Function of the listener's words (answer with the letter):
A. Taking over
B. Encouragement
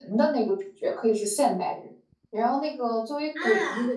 B